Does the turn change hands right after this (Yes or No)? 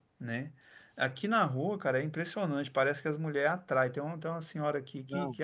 No